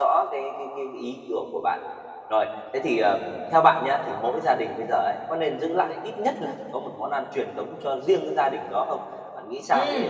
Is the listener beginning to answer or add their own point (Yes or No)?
Yes